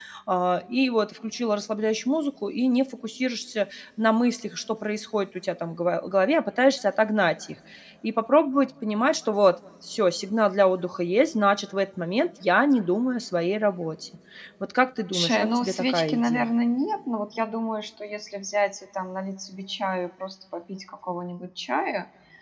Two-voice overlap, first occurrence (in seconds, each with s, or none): 15.1 s